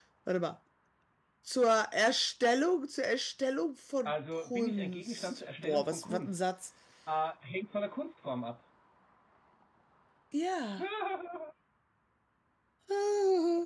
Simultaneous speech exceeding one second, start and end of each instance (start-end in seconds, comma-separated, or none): 4.0-6.3